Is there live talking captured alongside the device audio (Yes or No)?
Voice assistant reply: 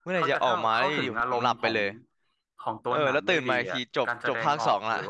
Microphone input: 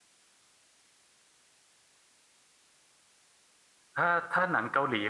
Yes